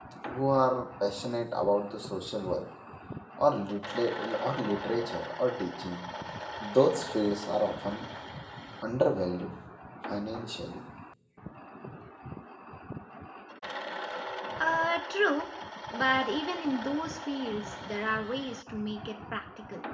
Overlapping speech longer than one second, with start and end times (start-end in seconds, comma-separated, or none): none